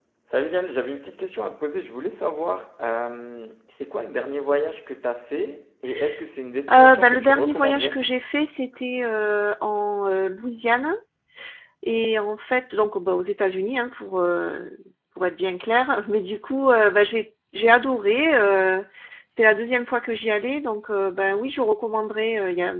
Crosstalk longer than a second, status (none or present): present